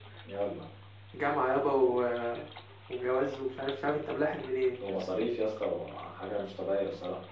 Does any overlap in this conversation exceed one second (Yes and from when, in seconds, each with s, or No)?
No